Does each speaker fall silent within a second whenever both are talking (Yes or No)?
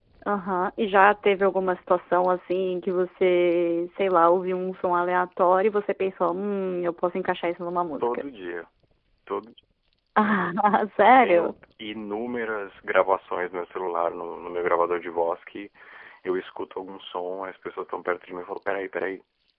Yes